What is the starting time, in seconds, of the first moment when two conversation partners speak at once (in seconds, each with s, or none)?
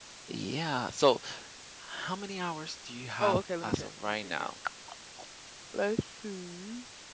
3.2 s